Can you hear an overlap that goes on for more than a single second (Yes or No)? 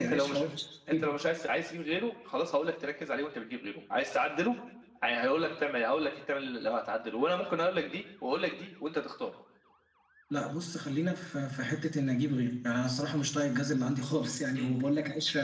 No